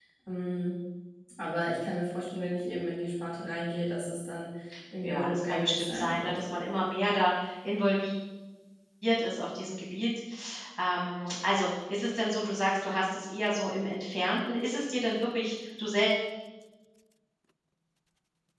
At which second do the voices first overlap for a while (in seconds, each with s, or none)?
5.0 s